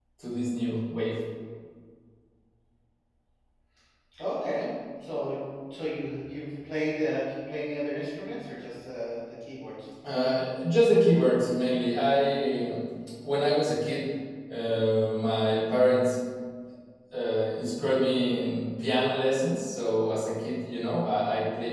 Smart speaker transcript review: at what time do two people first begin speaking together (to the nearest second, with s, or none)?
none